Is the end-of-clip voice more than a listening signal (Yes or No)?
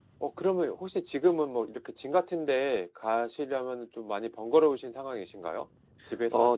Yes